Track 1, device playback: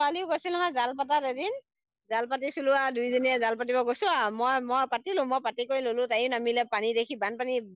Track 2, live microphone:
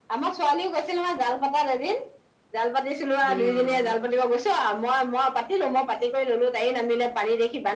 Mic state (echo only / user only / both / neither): both